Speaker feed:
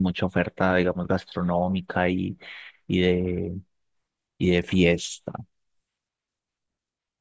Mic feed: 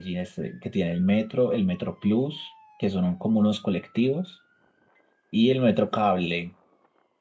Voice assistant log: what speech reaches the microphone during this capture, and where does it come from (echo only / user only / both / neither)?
user only